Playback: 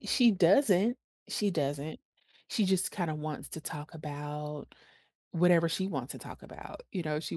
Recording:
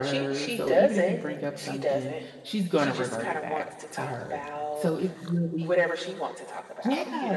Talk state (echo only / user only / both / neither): both